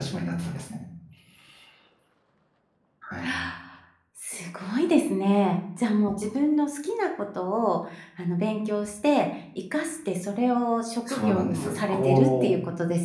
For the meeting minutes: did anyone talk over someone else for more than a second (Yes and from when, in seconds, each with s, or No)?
Yes, from 11.1 s